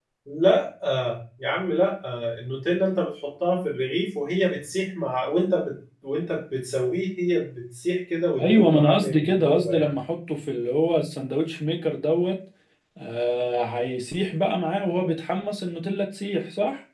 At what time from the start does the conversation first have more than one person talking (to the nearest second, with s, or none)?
8 s